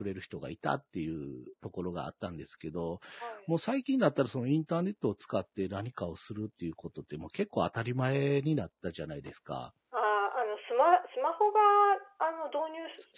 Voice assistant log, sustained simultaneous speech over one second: none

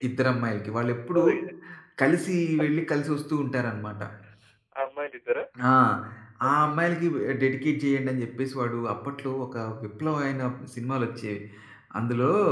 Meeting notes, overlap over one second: none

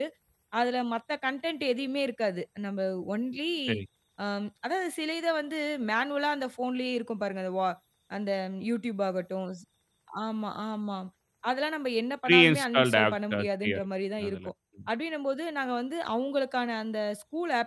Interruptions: present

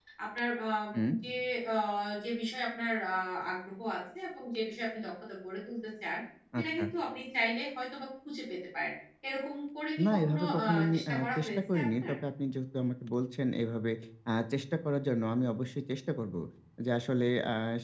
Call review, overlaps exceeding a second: present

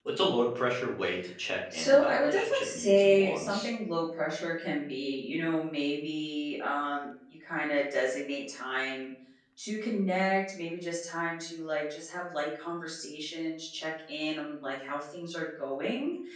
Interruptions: present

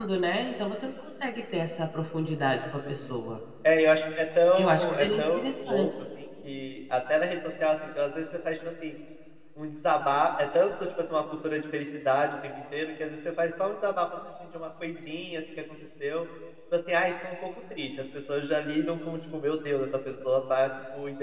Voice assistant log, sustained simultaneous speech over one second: present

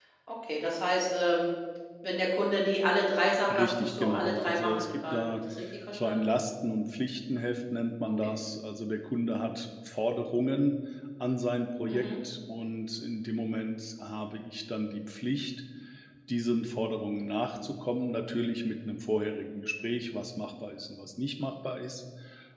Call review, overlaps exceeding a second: present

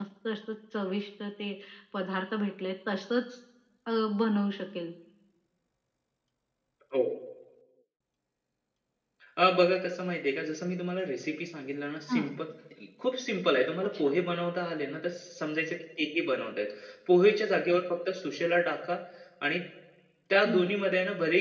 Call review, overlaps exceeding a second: none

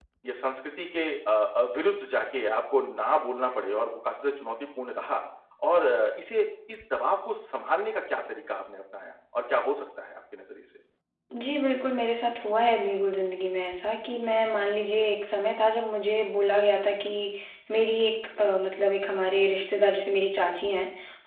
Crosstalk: none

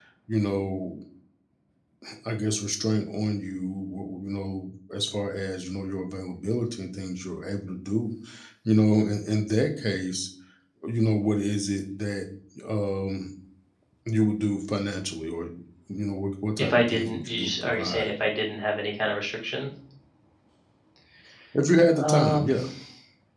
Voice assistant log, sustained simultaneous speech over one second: present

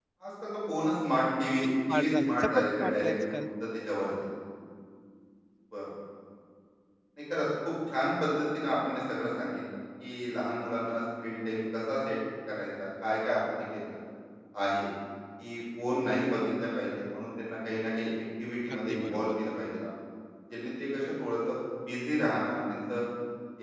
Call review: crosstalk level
present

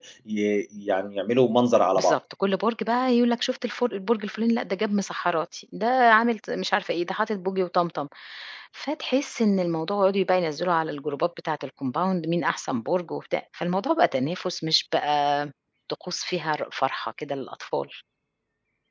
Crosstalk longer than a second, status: none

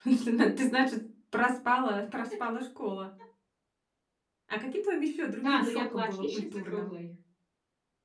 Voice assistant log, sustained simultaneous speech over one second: present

